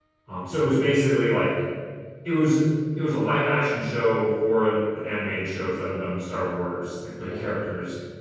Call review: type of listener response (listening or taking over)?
listening